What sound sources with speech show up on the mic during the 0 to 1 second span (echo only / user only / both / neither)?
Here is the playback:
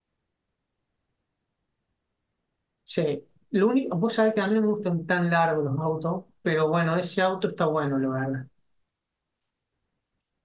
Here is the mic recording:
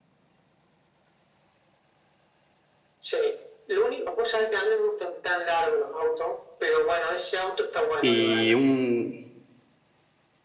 neither